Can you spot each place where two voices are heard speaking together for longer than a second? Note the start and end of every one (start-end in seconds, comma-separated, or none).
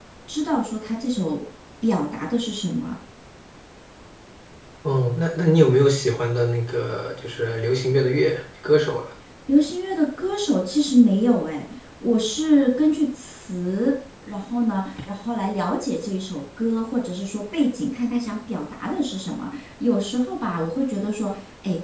none